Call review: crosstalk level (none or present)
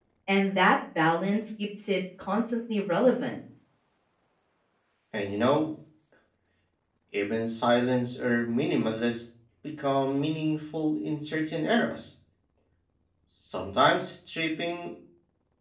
none